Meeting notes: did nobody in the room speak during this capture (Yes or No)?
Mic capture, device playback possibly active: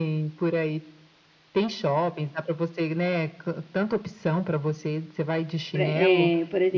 No